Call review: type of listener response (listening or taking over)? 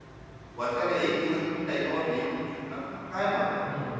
taking over